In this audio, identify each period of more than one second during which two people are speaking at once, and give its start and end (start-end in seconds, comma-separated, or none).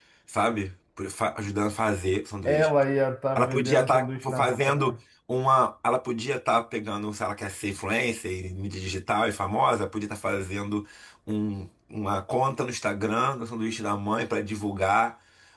3.4-5.0